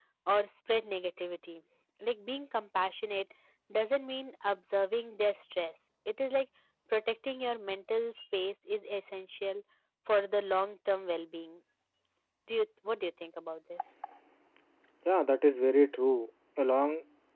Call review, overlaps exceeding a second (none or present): none